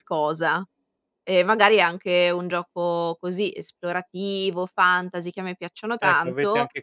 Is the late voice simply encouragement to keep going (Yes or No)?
No